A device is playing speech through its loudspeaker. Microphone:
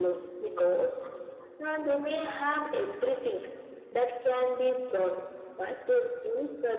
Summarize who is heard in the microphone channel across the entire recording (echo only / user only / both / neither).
echo only